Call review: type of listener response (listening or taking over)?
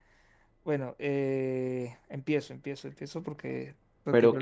taking over